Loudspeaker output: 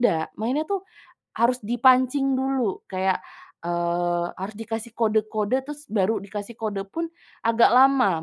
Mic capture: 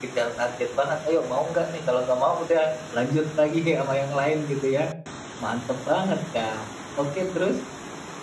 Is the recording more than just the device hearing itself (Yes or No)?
Yes